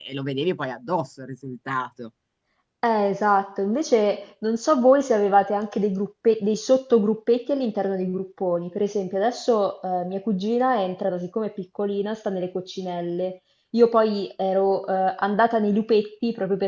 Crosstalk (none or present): none